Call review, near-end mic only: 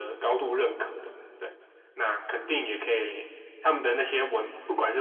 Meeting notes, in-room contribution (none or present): none